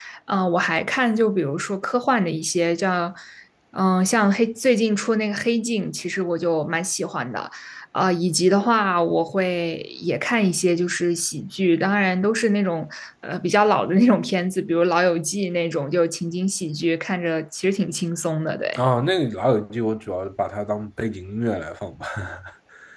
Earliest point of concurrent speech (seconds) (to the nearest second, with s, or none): none